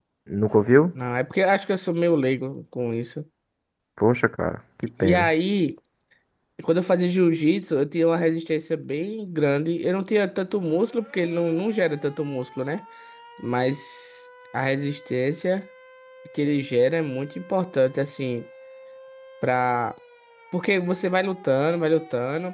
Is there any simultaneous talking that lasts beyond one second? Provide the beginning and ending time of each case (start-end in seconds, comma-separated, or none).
none